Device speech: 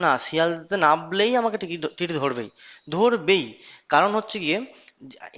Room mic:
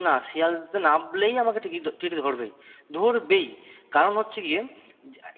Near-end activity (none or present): none